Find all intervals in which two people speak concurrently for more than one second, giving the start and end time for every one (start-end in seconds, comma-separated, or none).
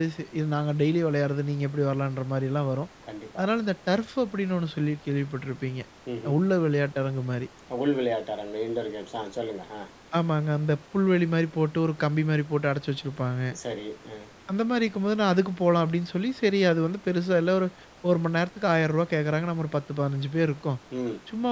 none